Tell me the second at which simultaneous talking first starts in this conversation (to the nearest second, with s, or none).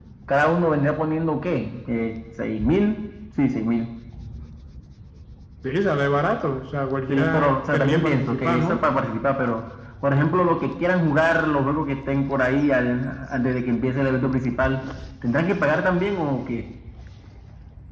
7 s